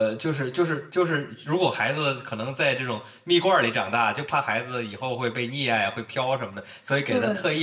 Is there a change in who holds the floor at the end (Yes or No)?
No